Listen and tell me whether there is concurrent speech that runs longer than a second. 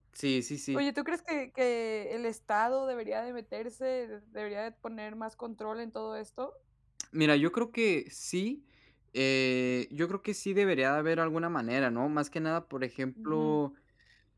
No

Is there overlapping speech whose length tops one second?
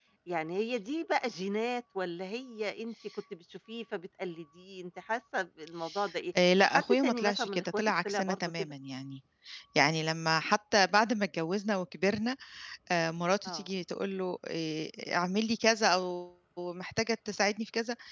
Yes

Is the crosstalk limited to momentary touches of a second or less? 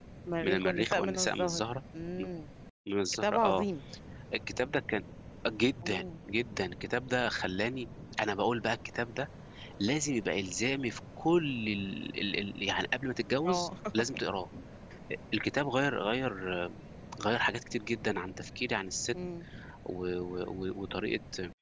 No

